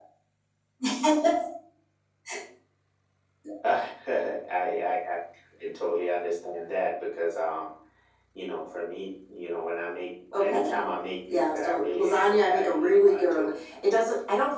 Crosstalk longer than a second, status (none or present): present